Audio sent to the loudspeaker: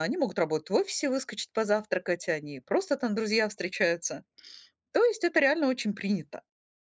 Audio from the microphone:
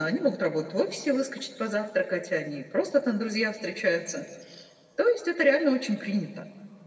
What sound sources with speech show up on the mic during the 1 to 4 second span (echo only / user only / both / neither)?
echo only